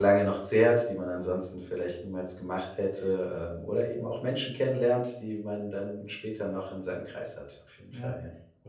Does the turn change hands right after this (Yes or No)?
Yes